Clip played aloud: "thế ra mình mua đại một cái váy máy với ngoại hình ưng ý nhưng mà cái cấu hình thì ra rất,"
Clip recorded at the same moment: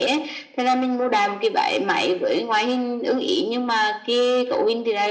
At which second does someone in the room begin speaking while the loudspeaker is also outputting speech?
none

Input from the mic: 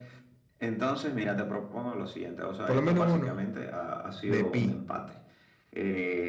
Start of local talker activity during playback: 3 s

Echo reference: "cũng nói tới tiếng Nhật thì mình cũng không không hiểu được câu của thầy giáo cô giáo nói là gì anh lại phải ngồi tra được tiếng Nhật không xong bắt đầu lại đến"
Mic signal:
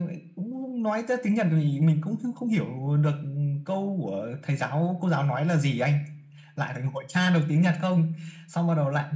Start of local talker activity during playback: none

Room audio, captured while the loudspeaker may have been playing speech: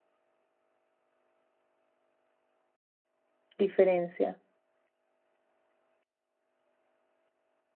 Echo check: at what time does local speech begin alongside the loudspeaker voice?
4 s

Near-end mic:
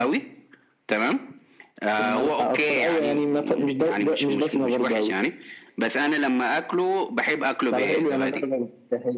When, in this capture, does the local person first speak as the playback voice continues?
none

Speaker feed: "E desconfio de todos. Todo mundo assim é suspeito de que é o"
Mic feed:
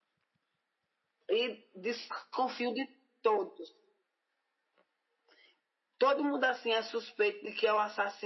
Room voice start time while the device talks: none

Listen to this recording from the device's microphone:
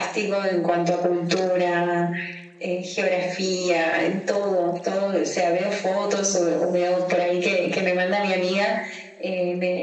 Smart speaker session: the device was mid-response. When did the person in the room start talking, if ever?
none

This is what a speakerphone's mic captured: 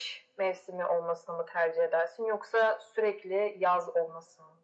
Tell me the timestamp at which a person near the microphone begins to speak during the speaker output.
none

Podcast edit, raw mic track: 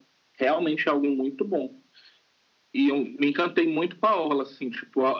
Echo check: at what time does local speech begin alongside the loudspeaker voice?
none

